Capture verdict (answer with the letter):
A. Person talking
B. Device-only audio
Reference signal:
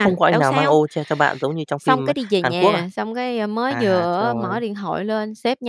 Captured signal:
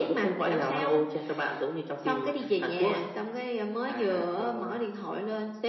B